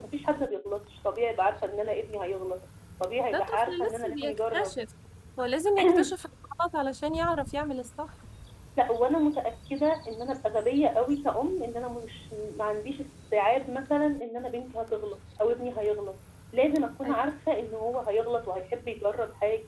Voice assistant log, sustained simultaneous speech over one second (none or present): present